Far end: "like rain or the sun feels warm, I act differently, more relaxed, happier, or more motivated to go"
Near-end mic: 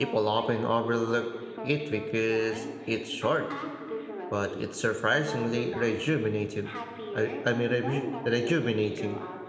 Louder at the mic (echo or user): user